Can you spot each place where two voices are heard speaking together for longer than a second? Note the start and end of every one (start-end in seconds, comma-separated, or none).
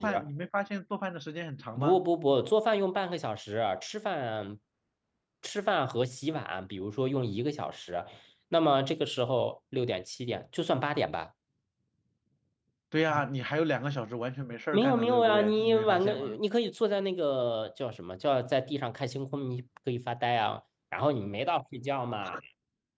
14.7-16.2